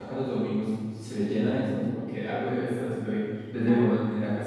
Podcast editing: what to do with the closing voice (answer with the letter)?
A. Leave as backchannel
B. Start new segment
A